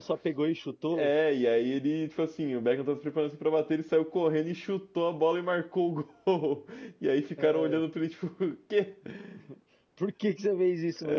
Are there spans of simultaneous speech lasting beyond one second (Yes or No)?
No